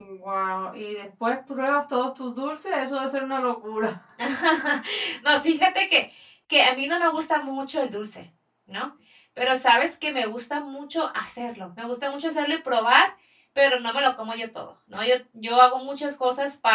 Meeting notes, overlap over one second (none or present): none